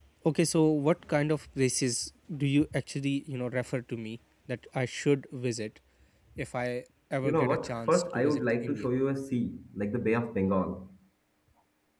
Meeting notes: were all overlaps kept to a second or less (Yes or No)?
No